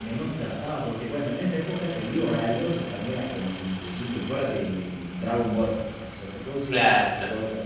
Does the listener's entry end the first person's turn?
No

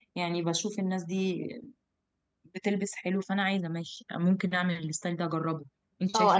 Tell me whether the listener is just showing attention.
No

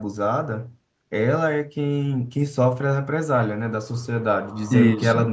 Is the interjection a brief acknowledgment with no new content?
Yes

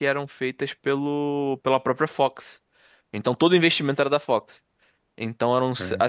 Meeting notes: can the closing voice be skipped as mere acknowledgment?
Yes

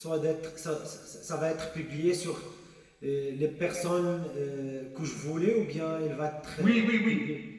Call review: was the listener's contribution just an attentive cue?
No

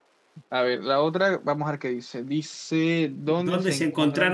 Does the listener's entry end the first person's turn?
Yes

